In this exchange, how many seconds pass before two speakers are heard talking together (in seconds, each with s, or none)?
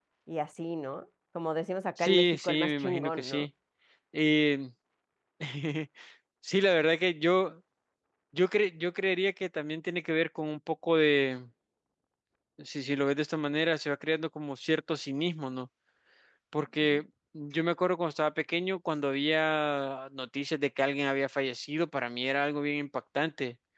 2.0 s